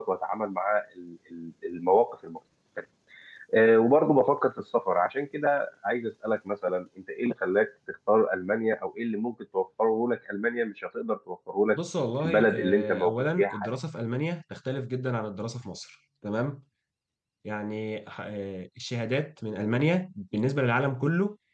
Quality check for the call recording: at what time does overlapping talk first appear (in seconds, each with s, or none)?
12.2 s